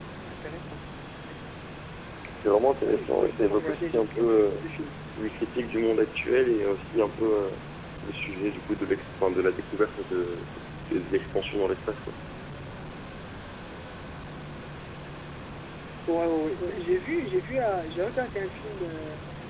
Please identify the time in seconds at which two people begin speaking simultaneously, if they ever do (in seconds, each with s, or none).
2.8 s